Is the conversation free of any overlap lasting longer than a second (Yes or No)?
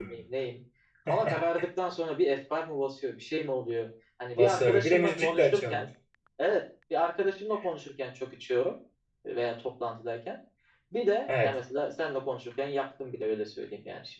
No